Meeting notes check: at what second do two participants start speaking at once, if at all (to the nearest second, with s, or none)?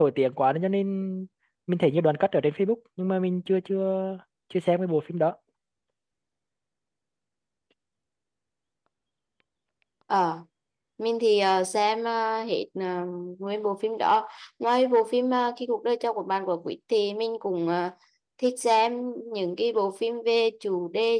none